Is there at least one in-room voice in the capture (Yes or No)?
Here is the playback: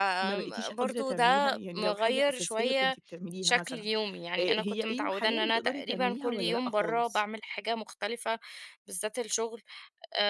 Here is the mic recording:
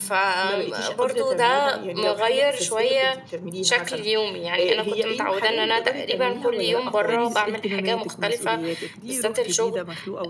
Yes